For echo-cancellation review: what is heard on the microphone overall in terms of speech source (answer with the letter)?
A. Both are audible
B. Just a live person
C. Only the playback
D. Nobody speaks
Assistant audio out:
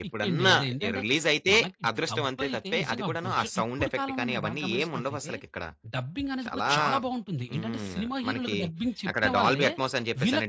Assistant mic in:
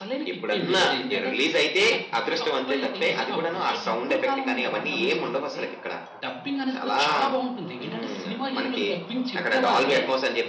C